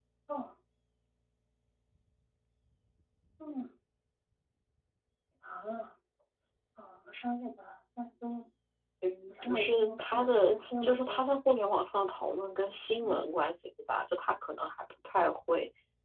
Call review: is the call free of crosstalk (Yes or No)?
No